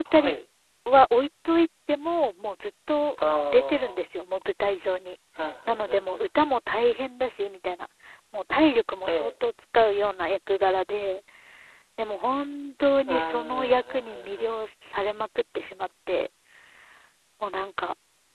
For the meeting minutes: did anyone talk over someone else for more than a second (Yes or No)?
Yes